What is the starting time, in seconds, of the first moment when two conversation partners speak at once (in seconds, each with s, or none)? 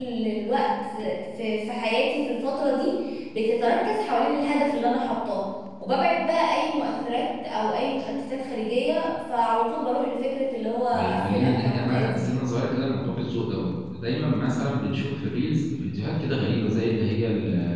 10.9 s